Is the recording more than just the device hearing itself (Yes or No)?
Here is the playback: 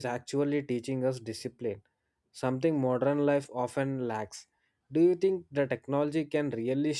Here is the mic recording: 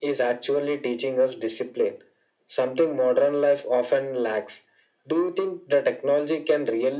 No